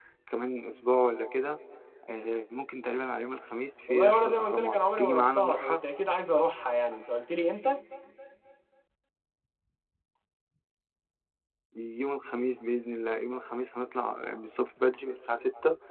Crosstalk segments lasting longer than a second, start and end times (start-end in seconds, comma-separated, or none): 3.9-5.8